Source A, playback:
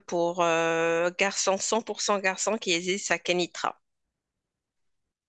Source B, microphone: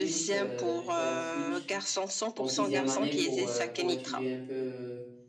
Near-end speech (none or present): present